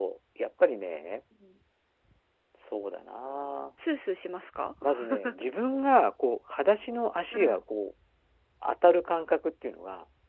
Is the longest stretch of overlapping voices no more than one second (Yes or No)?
Yes